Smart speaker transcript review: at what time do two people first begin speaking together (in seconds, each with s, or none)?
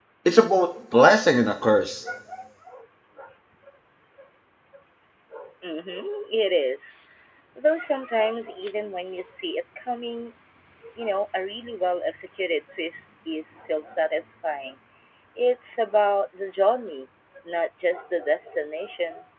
none